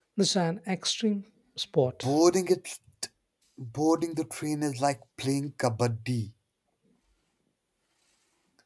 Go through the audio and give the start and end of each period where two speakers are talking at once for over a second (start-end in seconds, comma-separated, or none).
none